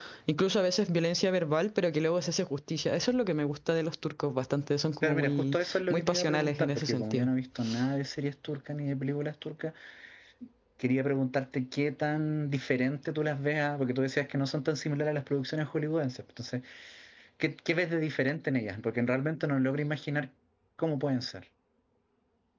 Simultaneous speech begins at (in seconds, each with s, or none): 5.0 s